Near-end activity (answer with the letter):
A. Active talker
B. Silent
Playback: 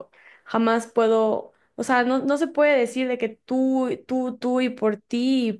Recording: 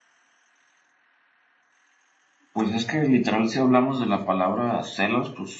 A